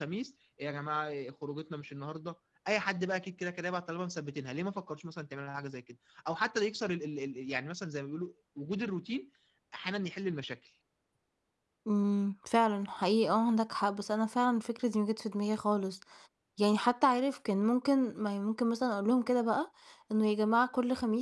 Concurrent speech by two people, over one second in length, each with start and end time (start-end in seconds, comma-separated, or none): none